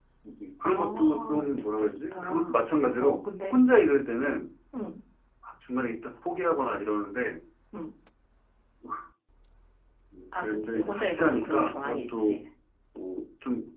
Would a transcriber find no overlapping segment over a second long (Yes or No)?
No